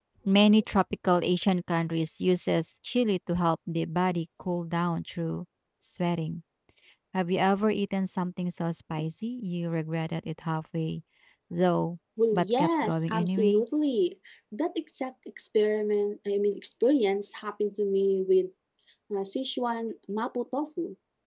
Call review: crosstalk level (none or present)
present